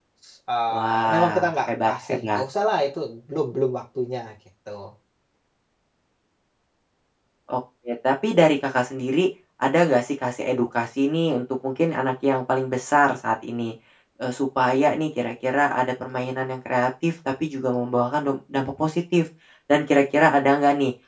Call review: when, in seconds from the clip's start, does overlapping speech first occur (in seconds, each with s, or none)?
0.7 s